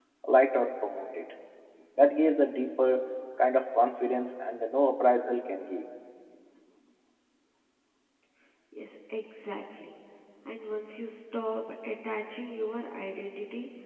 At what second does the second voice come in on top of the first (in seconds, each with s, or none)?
none